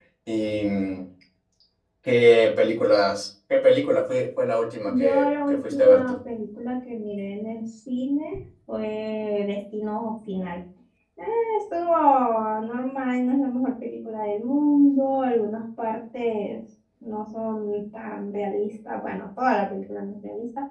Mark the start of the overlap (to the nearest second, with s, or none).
5 s